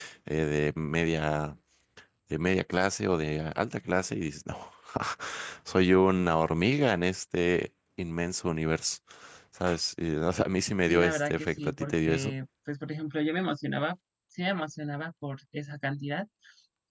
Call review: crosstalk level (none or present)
present